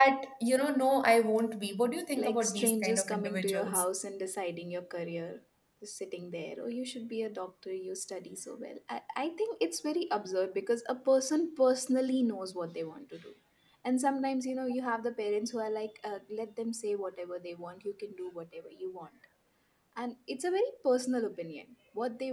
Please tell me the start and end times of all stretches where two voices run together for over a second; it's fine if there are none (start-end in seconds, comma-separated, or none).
2.1-3.9